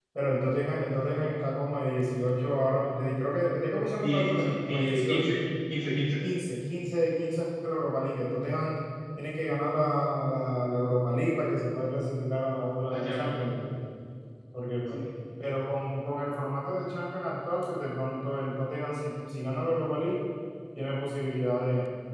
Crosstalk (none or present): present